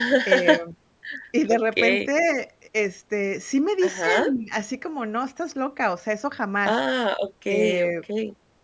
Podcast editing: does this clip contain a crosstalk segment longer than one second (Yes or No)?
No